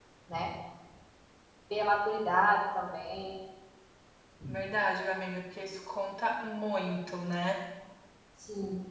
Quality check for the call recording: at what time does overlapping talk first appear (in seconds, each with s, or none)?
none